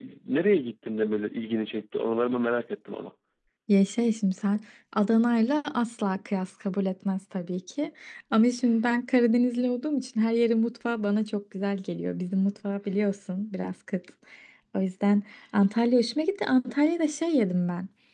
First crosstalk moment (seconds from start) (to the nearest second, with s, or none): none